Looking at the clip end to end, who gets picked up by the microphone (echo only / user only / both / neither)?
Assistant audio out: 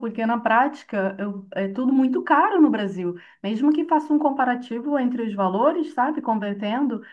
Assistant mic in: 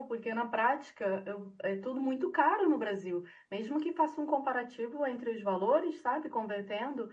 echo only